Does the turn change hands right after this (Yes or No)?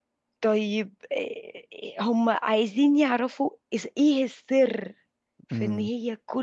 No